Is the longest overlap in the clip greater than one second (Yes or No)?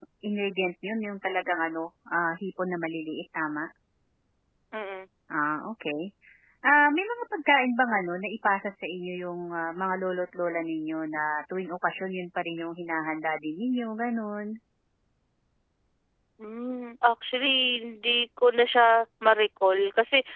No